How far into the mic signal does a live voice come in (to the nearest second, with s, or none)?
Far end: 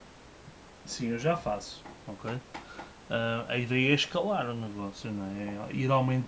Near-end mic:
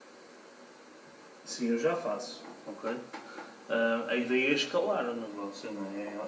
none